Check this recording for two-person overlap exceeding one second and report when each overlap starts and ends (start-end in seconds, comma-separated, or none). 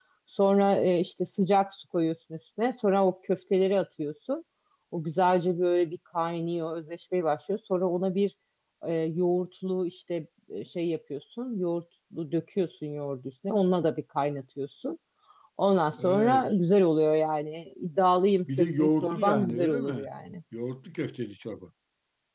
18.6-20.1